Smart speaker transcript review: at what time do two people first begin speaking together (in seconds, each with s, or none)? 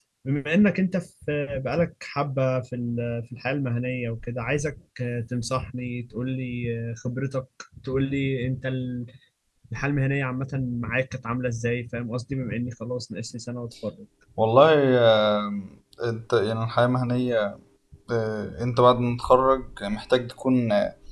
none